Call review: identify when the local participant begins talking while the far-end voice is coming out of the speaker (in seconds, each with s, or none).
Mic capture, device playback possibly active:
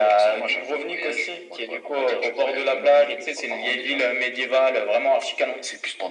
none